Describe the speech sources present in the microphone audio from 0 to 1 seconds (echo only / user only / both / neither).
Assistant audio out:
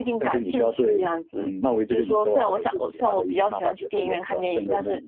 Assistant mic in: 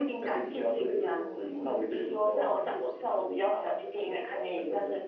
both